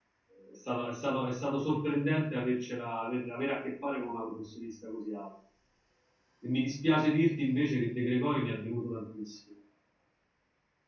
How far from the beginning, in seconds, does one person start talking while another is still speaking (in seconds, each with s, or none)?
none